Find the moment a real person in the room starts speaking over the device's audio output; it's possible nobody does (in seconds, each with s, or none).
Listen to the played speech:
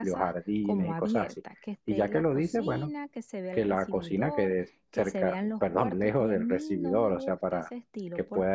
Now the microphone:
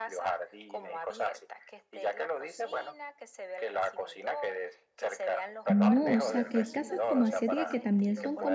5.6 s